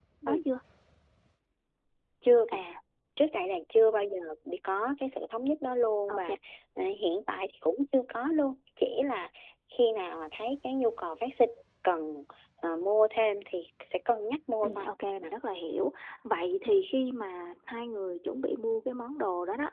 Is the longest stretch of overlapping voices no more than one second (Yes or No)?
Yes